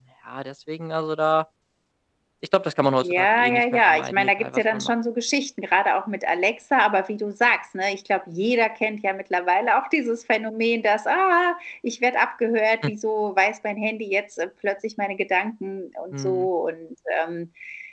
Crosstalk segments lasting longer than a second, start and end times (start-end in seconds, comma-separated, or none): 3.0-4.9